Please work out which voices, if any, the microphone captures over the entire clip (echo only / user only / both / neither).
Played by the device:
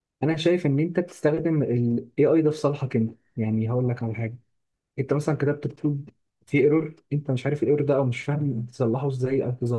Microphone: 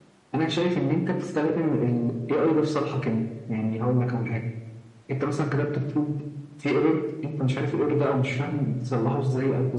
echo only